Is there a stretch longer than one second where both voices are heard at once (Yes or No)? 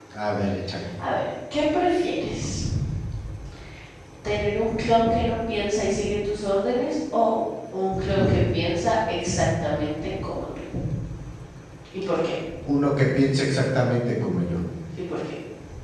No